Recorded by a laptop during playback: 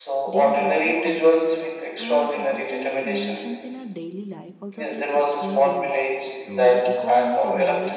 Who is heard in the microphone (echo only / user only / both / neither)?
both